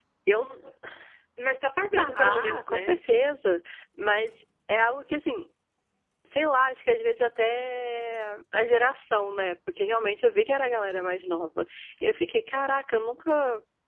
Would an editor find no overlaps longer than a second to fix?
No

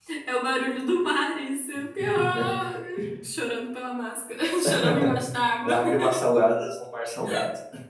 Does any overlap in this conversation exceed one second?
No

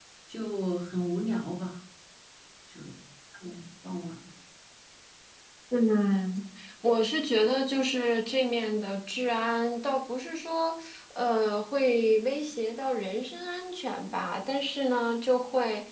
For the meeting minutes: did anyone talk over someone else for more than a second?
No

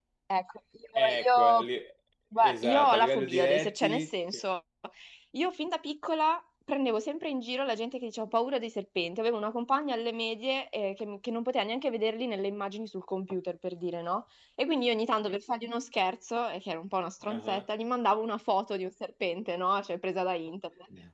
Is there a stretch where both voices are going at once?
Yes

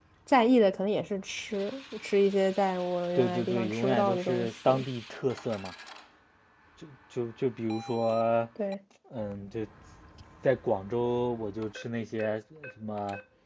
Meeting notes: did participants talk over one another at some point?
Yes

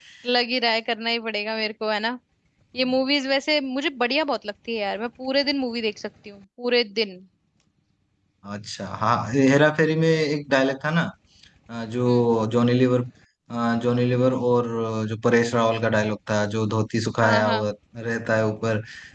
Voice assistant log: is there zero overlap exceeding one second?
Yes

